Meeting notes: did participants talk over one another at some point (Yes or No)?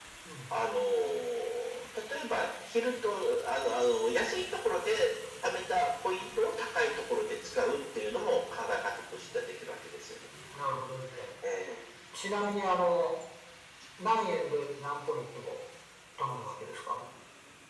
No